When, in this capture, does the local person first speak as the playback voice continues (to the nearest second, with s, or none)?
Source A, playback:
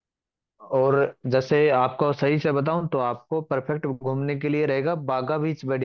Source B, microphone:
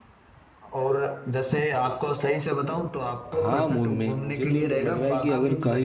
3 s